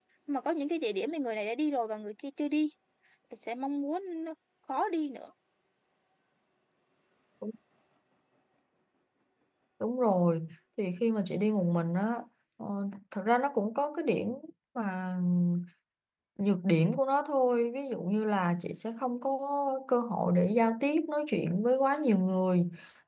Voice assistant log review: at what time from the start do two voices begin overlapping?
none

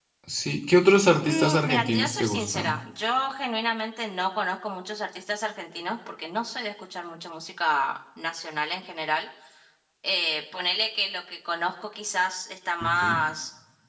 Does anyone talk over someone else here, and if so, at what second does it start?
1.2 s

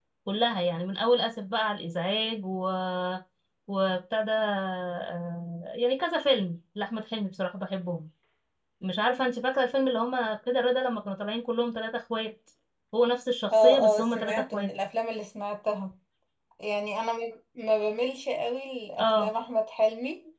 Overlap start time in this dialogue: 13.5 s

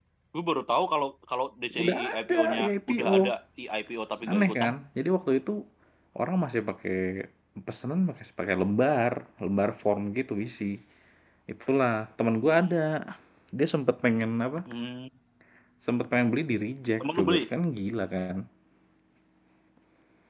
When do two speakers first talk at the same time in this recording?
1.7 s

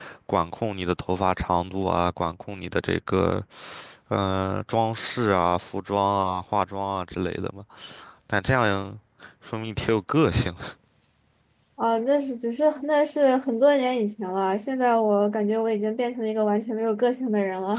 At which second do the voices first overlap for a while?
none

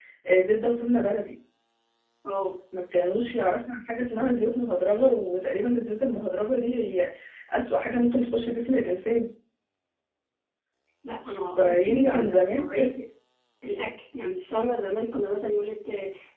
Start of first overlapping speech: 11.6 s

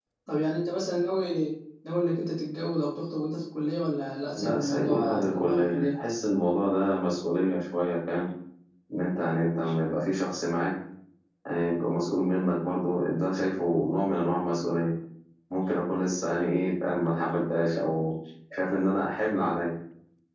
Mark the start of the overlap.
4.4 s

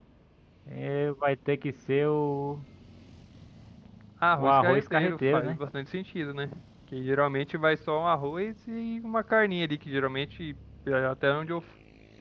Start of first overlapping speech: 4.4 s

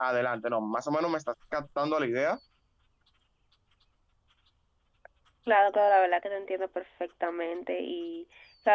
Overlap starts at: none

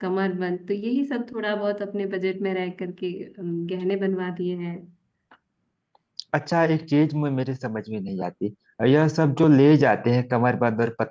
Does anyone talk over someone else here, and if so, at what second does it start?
none

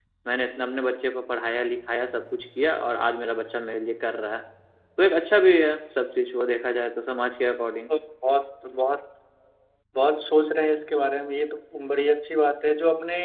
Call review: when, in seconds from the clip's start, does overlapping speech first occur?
none

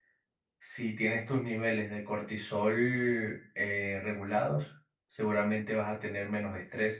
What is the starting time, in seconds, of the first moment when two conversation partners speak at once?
none

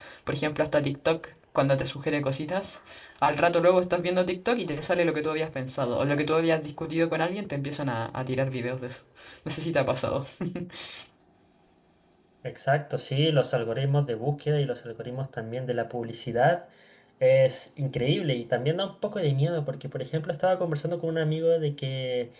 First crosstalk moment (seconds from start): none

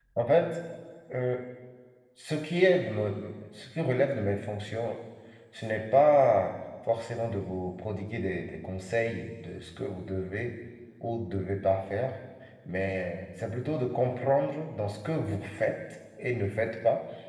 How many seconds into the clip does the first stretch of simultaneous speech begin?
none

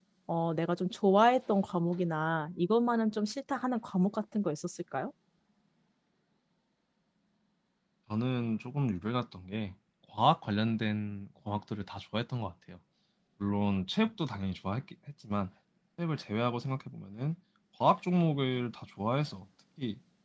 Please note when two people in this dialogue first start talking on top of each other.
none

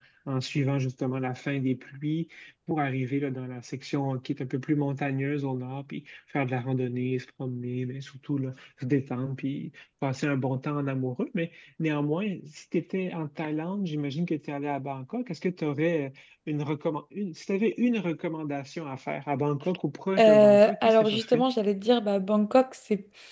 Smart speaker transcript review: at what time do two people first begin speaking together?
20.2 s

